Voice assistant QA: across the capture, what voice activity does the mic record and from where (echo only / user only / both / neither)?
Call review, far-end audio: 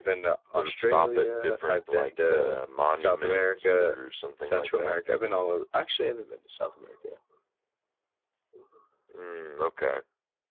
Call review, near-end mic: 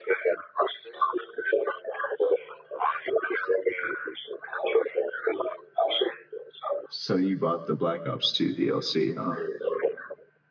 both